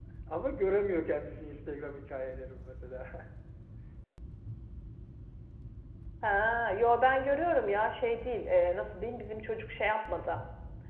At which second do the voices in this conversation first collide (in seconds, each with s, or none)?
none